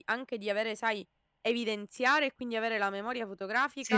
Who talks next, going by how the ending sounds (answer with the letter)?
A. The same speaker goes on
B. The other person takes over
B